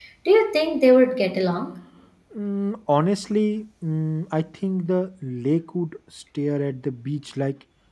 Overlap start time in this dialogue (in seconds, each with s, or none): none